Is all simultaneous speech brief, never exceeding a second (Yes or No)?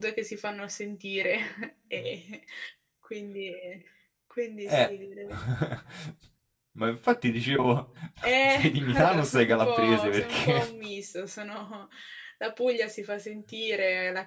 No